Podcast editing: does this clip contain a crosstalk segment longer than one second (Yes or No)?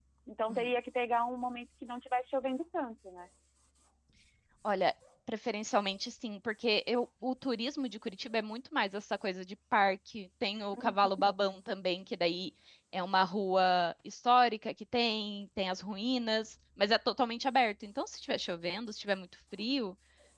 No